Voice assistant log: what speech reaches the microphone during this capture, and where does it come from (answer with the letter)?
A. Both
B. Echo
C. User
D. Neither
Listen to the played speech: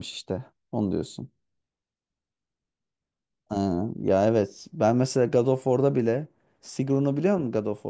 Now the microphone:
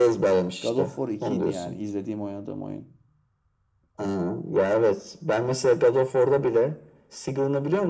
A